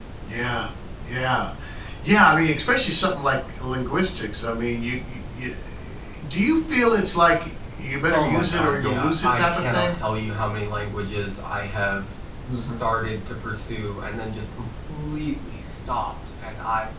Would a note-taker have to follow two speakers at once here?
Yes, from 8.1 s

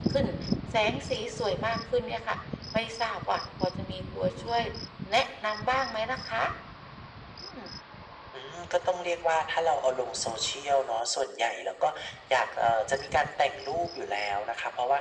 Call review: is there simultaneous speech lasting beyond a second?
No

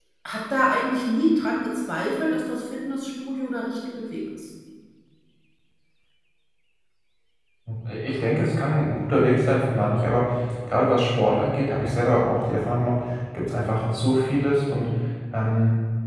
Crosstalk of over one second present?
No

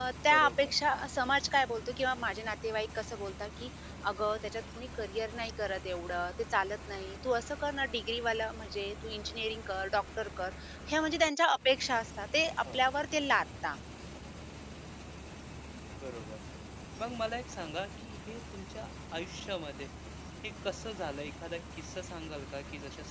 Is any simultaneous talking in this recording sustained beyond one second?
No

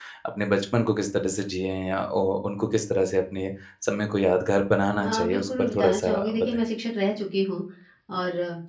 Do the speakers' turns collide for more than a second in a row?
Yes, from 5.0 s

